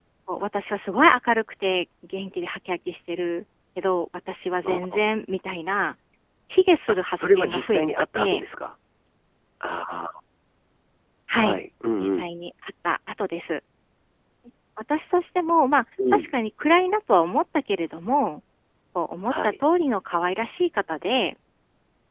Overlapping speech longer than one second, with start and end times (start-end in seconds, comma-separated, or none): 6.9-8.4